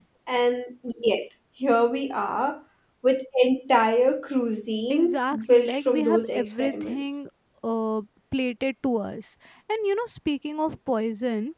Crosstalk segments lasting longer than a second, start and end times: 4.9-7.0

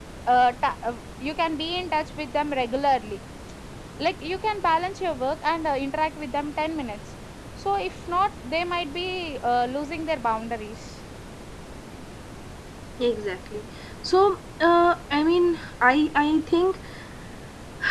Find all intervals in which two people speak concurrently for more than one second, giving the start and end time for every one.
none

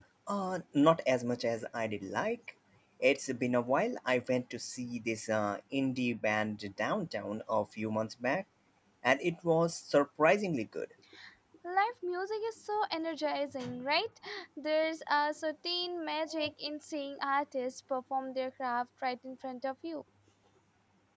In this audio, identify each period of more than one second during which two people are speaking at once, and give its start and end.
none

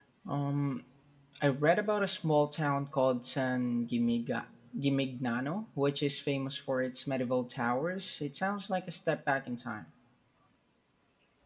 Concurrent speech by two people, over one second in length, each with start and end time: none

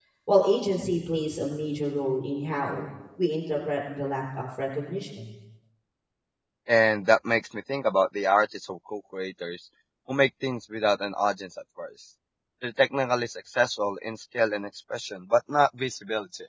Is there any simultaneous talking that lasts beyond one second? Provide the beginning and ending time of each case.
none

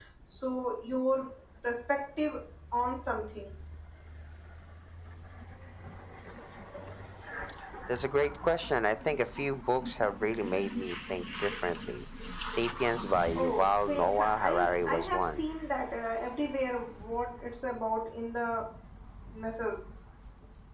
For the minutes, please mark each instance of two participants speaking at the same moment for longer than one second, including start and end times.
13.3-15.4

